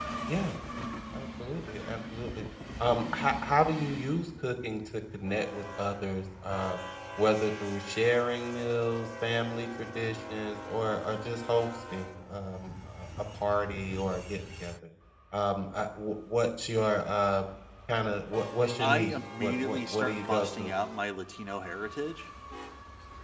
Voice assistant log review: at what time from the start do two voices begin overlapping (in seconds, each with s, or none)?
18.8 s